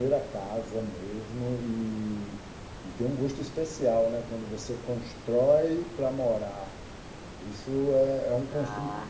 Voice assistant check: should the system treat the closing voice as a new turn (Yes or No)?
No